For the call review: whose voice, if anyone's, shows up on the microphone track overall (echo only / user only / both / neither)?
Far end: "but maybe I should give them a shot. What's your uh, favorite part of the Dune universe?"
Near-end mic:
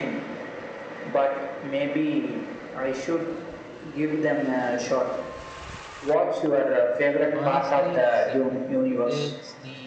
both